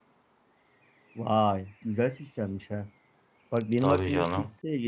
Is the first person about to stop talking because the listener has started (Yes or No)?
No